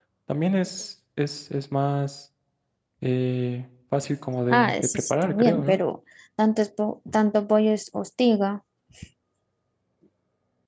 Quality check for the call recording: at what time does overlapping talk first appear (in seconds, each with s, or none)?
4.5 s